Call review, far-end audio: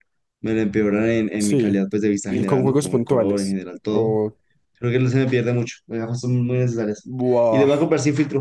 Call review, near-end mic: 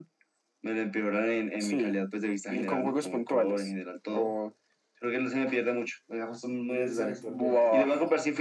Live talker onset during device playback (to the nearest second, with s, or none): 7 s